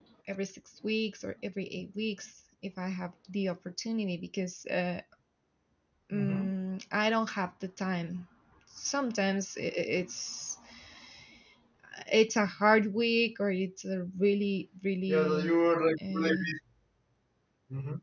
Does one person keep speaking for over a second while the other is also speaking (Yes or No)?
No